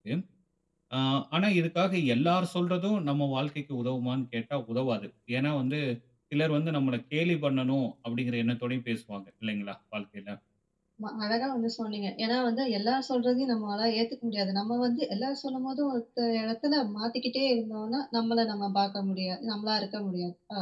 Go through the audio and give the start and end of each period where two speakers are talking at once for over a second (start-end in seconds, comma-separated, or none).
none